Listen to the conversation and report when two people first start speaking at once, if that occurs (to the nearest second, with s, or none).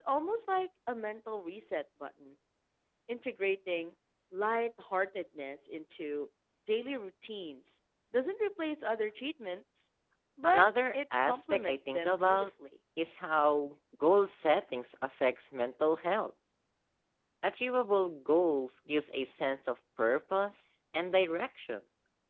11 s